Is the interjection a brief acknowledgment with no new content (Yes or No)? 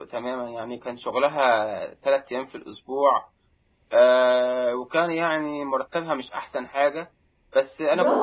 No